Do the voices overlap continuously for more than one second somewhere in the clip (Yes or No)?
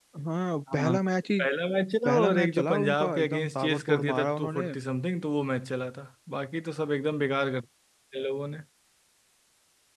Yes